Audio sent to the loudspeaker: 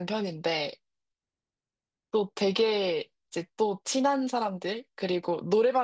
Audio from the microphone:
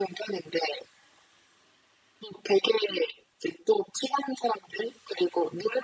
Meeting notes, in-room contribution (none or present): none